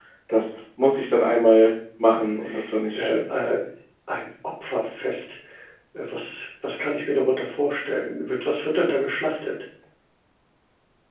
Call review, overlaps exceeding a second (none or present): none